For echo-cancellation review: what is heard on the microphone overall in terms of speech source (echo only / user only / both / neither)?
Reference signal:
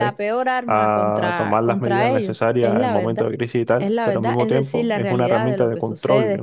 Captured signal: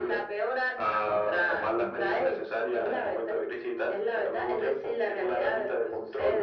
echo only